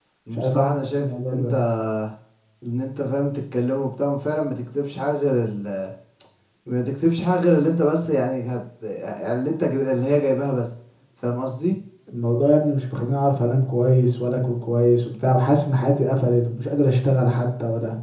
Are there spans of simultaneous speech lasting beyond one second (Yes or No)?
Yes